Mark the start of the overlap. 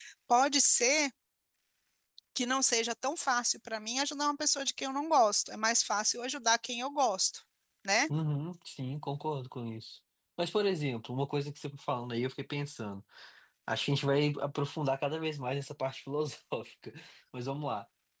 none

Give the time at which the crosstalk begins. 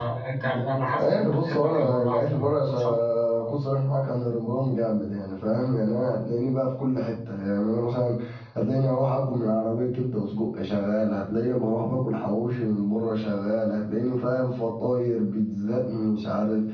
1.0 s

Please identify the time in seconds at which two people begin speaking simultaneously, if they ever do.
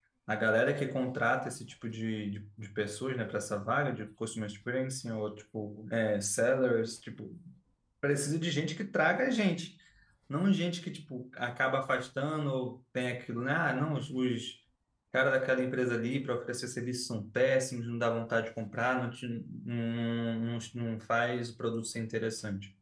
none

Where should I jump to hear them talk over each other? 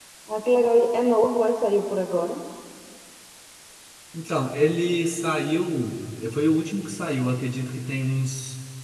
none

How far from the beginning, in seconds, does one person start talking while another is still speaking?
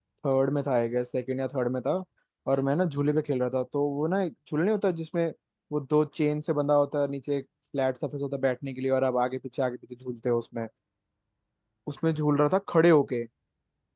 none

